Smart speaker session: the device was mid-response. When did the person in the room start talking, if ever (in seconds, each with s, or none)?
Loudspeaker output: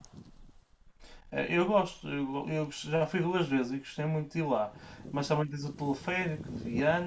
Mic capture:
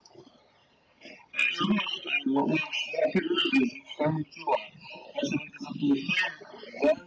none